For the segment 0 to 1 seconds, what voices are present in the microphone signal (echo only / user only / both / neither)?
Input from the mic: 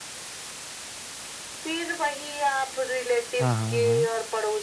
neither